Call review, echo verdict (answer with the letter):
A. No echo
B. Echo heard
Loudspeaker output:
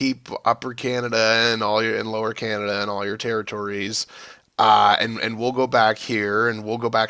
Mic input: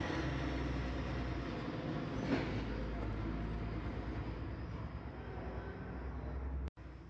A